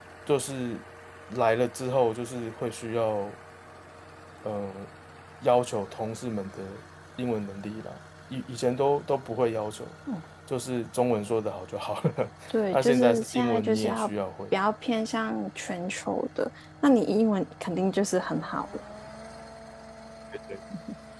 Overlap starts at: 12.7 s

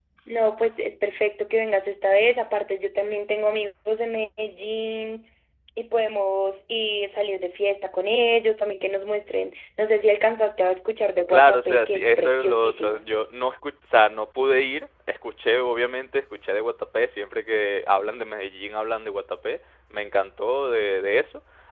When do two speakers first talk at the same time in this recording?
11.3 s

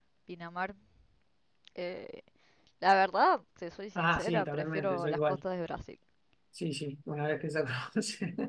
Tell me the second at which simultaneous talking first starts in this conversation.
4.0 s

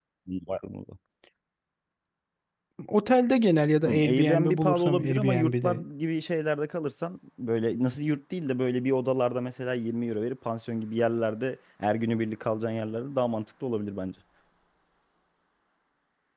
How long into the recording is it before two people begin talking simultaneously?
3.8 s

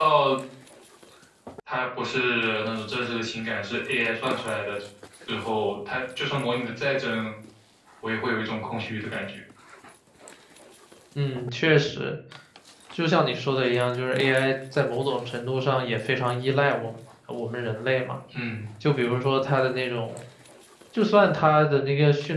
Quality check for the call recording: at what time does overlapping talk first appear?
none

